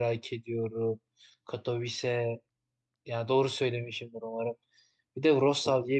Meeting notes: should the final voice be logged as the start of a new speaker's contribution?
No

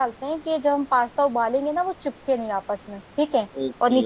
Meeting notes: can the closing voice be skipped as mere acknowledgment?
No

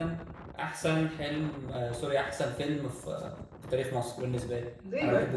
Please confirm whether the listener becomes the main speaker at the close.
Yes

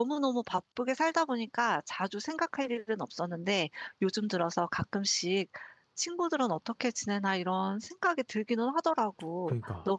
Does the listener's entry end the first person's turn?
No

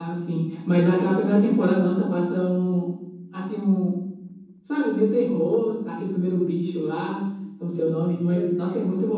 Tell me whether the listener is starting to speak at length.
No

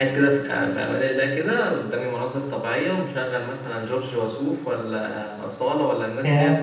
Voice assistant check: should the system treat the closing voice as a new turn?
No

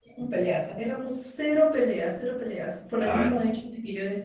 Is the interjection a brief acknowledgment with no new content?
Yes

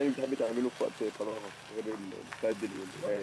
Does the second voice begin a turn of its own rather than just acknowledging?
Yes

